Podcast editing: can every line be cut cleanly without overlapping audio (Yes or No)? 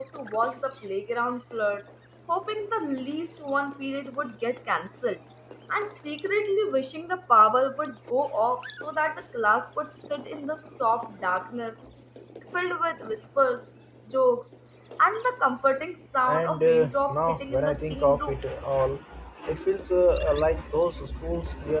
No